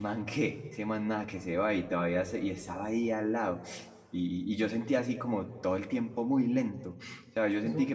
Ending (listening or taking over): listening